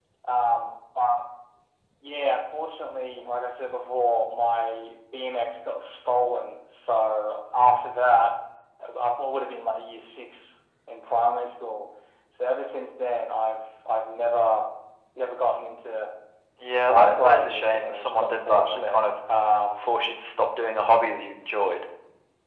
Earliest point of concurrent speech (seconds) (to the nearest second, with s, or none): 17 s